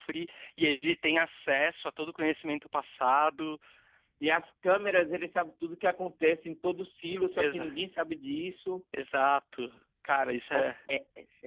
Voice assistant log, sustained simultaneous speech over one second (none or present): none